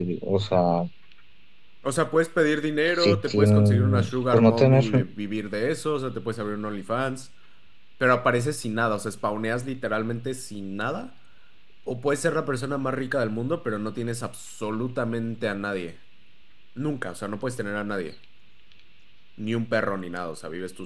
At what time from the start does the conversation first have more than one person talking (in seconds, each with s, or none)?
2.8 s